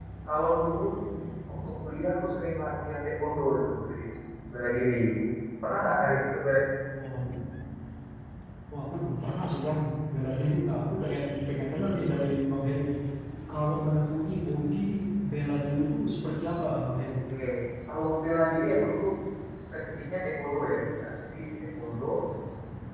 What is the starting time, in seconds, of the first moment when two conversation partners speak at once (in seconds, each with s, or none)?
none